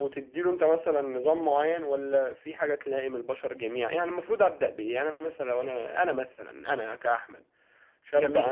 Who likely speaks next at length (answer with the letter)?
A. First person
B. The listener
A